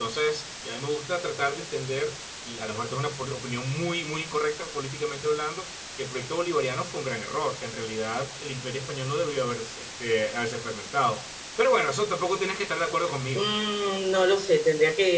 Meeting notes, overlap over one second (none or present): none